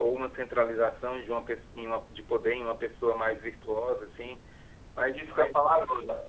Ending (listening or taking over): taking over